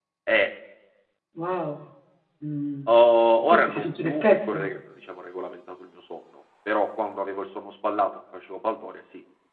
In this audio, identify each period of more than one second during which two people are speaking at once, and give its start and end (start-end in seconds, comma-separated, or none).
3.5-4.7